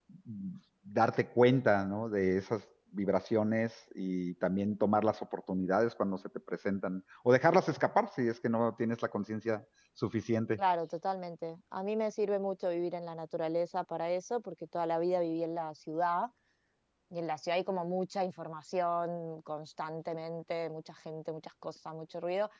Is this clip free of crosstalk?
Yes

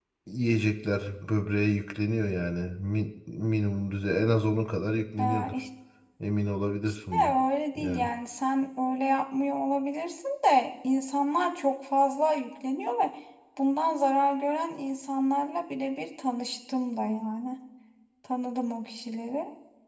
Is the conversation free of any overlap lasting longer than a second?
Yes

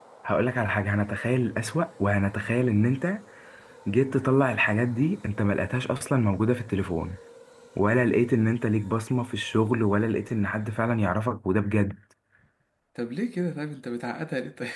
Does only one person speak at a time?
Yes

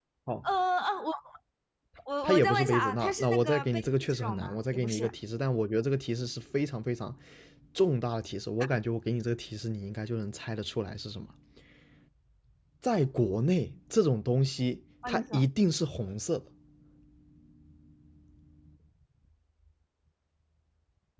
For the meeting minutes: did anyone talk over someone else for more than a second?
Yes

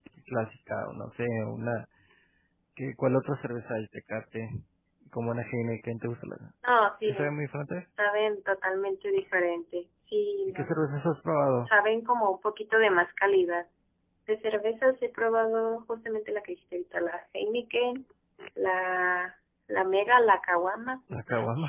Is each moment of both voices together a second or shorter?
Yes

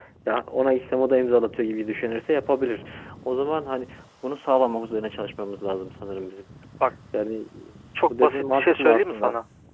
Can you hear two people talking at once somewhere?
Yes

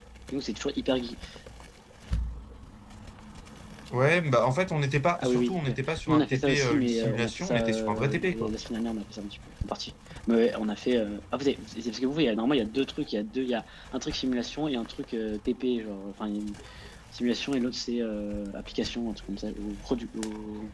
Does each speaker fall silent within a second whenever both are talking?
No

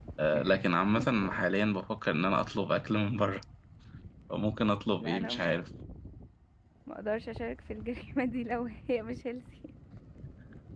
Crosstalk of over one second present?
No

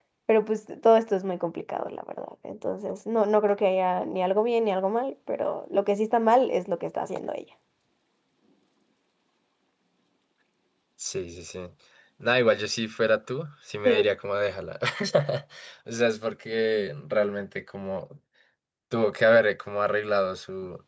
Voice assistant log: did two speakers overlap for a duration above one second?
No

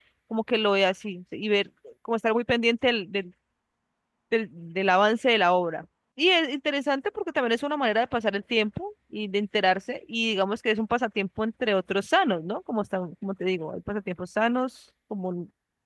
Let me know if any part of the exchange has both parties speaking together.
No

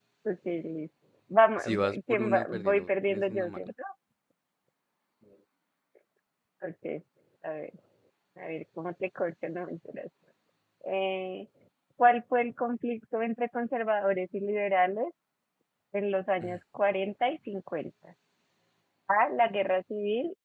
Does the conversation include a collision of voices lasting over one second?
Yes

